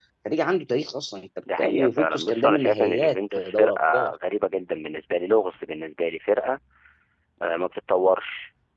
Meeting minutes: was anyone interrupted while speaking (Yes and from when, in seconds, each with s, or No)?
Yes, from 1.5 s